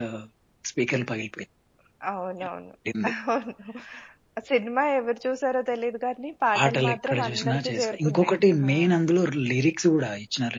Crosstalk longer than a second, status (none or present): present